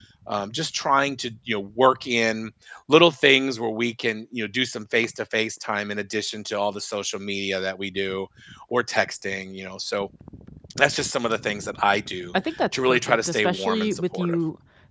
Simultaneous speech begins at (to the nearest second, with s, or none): 13 s